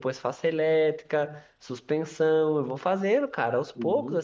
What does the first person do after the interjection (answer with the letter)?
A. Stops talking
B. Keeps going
B